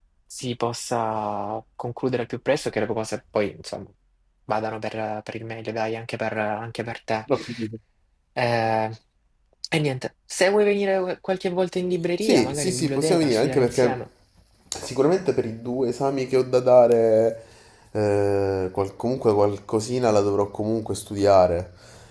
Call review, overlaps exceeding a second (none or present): present